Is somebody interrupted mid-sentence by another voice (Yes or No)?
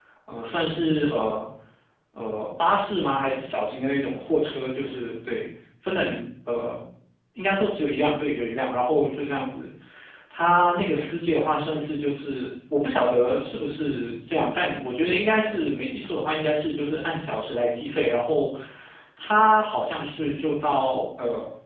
No